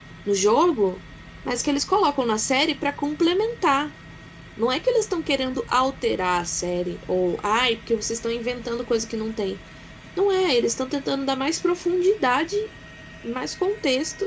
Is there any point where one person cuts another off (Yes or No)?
No